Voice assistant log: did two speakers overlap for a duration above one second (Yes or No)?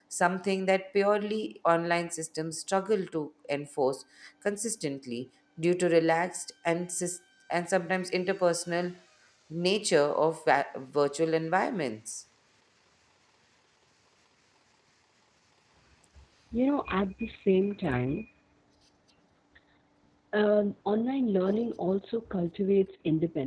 No